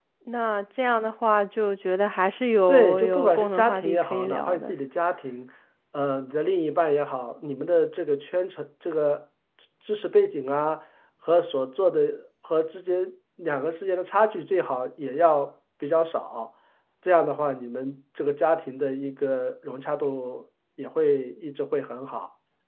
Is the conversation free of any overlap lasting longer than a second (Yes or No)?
No